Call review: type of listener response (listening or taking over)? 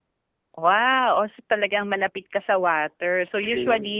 listening